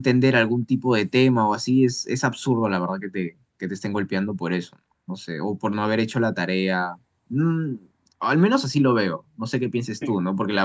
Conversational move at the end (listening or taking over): listening